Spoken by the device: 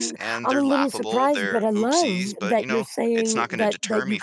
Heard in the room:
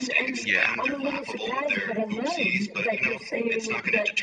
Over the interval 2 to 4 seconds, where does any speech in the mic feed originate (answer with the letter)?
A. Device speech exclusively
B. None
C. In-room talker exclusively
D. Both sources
A